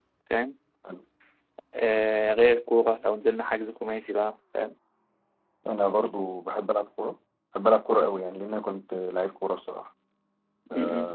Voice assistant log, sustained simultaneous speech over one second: none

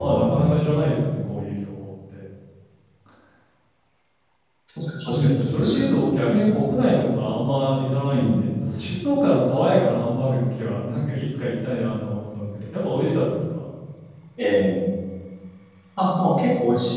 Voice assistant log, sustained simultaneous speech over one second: none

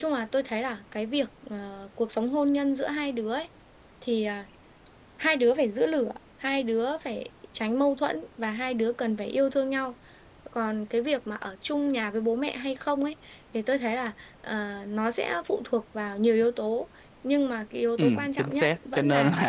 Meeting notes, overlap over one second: present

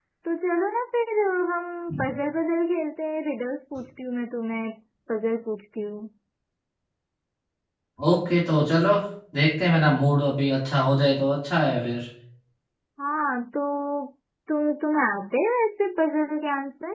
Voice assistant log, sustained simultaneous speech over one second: none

